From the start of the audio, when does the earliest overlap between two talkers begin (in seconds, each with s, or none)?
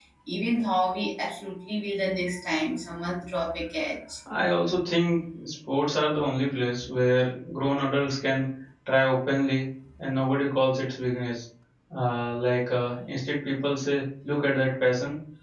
none